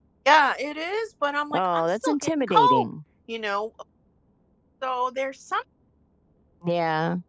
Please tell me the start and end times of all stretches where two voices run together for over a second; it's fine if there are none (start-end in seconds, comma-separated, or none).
1.5-2.9